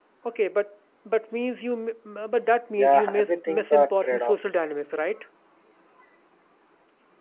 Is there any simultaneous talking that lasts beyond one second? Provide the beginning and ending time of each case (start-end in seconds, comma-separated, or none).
2.8-4.3